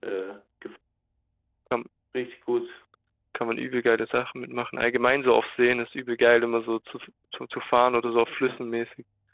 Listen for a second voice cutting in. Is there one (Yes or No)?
No